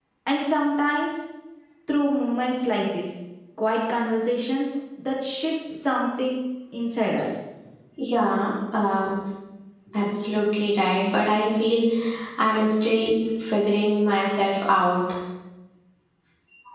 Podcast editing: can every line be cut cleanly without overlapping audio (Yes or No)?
Yes